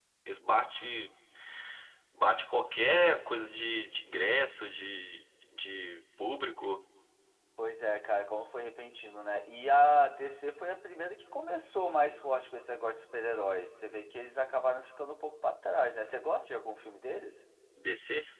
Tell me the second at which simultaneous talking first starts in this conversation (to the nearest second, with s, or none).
none